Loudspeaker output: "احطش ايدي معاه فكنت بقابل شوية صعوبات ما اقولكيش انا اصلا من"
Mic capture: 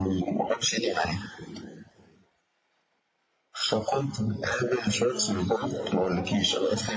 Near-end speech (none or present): present